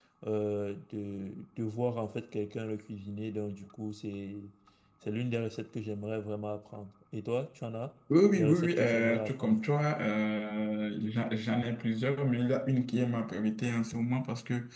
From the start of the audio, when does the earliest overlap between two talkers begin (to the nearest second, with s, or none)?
8 s